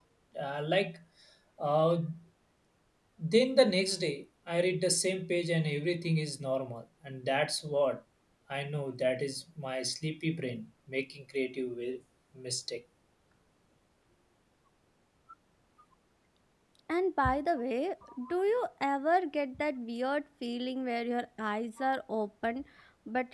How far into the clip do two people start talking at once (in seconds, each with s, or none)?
none